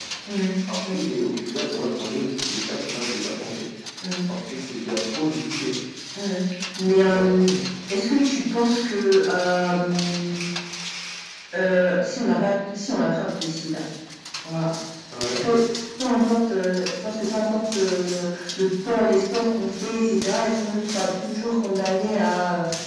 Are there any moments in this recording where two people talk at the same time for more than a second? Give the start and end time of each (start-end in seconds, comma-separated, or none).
none